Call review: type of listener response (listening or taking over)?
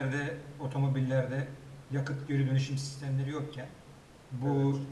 listening